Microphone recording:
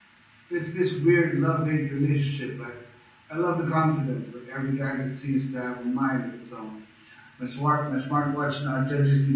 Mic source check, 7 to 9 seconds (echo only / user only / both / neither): user only